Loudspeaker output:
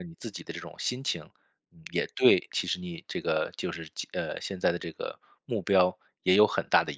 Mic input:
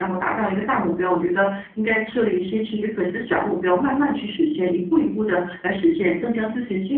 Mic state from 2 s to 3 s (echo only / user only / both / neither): user only